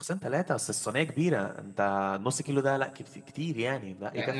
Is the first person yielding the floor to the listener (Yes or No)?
Yes